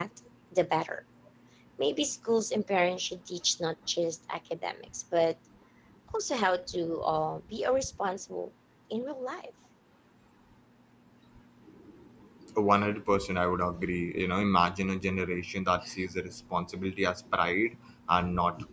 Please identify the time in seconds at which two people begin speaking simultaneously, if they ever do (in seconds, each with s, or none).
none